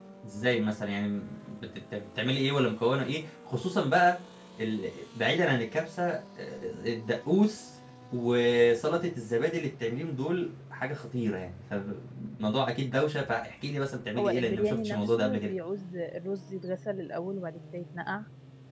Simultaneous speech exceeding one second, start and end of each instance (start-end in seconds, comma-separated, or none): 14.2-15.5